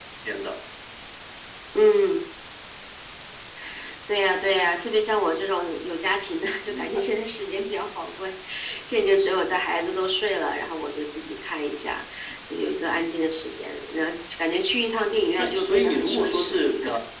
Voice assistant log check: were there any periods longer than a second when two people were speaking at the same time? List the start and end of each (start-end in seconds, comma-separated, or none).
15.4-16.6